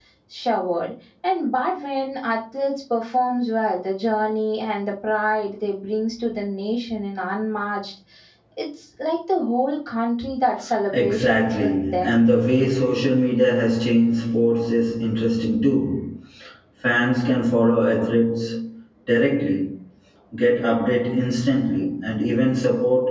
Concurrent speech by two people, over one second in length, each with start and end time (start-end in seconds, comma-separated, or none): 10.9-12.2